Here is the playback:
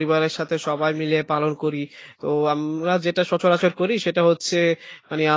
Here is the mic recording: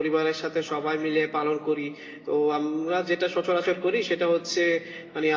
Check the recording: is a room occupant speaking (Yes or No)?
No